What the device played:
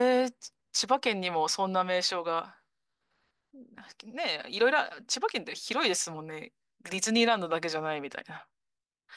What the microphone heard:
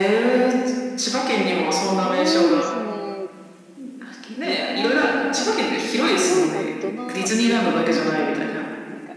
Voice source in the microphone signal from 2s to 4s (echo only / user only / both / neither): both